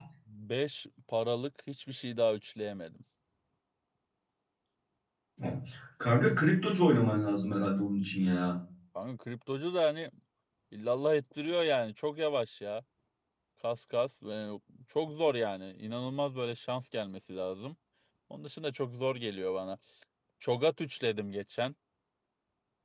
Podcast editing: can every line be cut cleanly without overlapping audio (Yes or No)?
Yes